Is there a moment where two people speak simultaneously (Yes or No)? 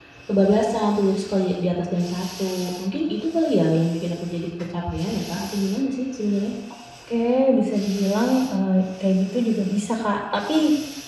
No